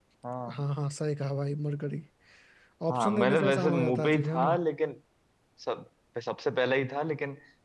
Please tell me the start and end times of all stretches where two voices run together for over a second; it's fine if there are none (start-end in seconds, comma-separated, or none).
2.9-4.6